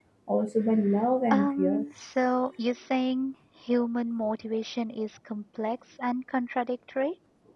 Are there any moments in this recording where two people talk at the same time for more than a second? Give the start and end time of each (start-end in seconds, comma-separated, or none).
none